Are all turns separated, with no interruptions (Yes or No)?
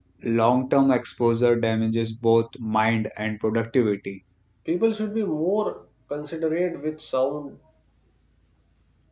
Yes